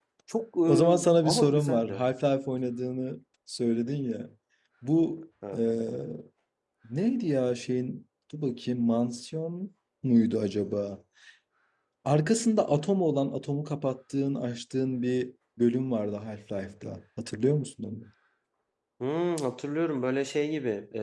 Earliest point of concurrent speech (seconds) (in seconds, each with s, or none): 0.7 s